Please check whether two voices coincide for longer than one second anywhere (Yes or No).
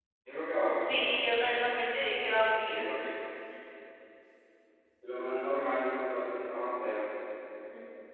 No